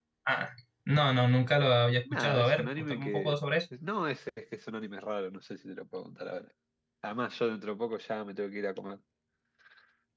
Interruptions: present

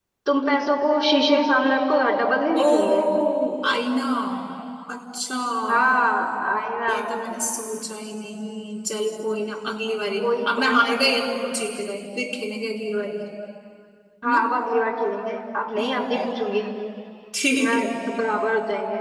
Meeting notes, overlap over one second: present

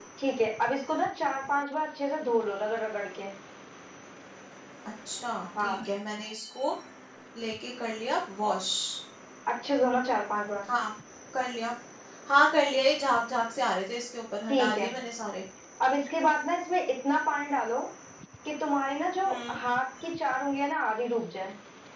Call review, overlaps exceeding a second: none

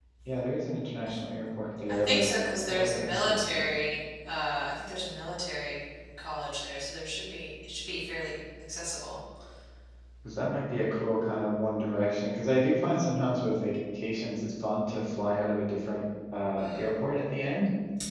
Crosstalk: present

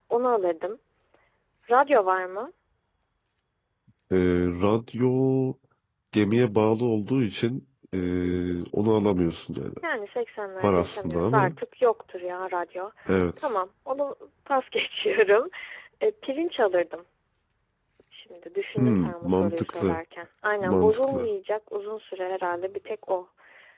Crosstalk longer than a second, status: present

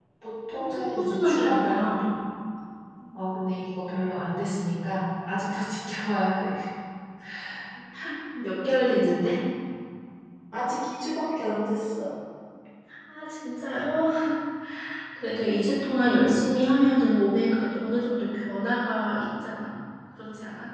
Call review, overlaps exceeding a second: present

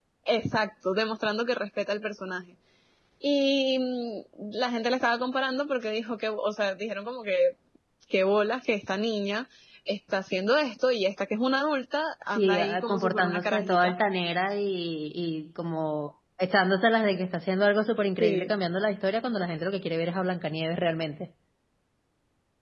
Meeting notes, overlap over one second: present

